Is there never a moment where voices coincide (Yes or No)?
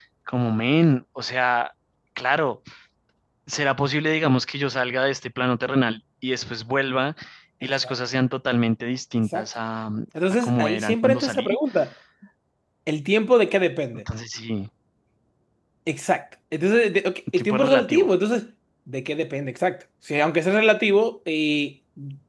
No